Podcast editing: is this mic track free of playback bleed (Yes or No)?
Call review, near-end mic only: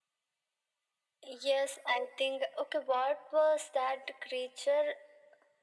No